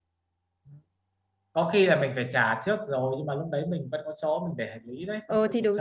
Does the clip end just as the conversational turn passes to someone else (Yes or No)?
Yes